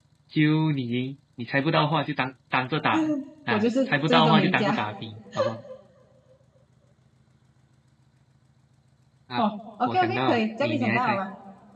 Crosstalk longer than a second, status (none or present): present